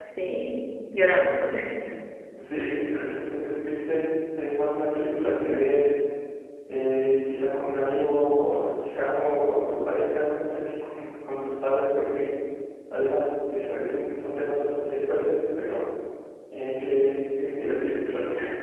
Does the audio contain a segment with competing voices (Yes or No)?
No